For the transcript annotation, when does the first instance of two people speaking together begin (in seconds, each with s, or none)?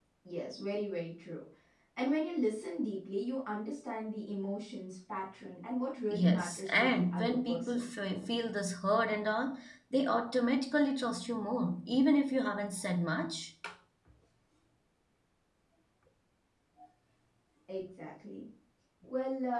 6.1 s